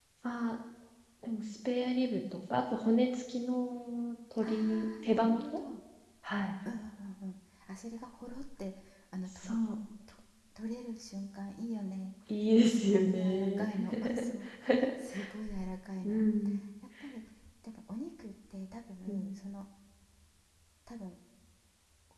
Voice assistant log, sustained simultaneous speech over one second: present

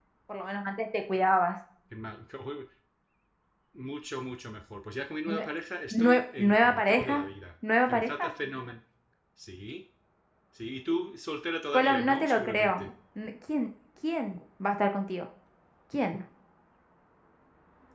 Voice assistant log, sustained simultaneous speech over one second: present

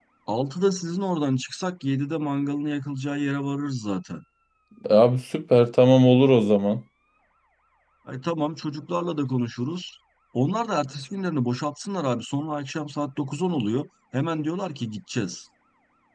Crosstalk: none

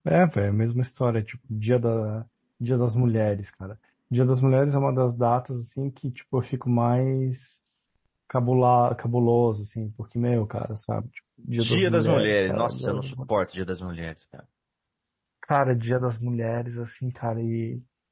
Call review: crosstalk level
present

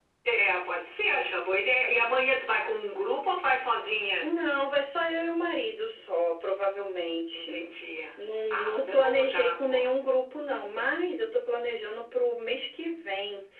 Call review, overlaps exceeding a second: present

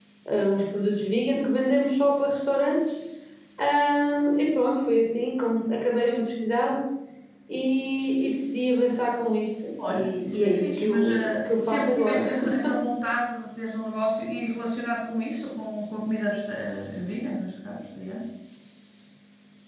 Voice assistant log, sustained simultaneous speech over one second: present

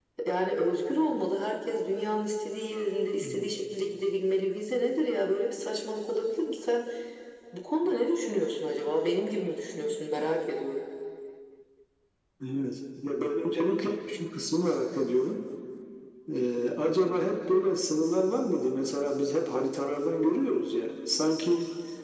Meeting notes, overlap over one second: none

